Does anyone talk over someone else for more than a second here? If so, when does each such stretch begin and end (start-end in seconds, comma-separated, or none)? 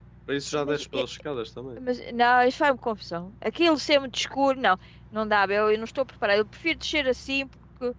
none